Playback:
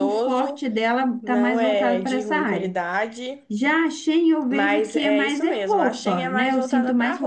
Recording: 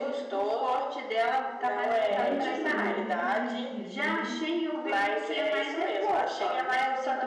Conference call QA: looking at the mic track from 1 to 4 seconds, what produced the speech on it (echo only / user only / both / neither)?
both